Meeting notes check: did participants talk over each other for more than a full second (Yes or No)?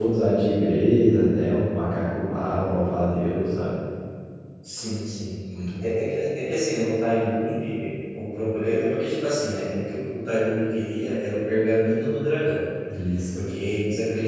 No